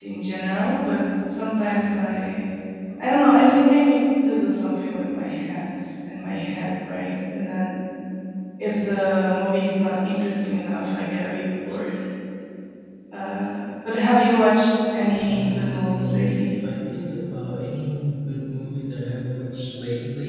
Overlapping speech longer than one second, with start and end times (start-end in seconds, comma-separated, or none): 15.3-16.5